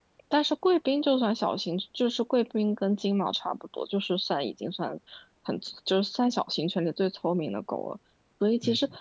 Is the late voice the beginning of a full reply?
No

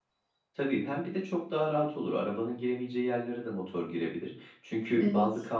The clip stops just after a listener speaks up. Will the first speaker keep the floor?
Yes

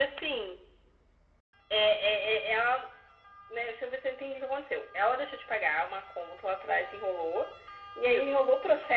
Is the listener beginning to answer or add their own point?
No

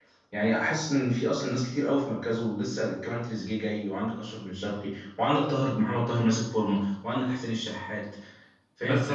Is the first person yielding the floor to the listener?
Yes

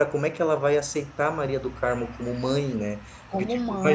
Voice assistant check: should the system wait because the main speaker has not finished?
Yes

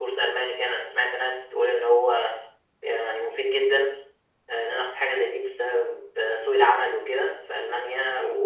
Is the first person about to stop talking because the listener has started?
No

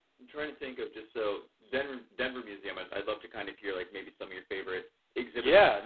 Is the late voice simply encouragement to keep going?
No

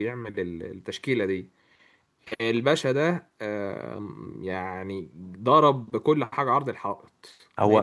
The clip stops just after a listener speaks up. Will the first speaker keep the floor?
No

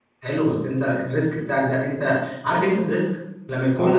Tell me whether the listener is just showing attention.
No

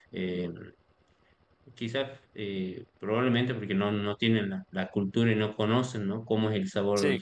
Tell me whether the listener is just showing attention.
Yes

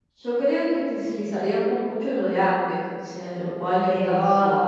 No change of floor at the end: Yes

